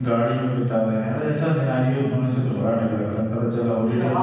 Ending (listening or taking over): taking over